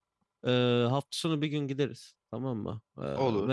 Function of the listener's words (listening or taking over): listening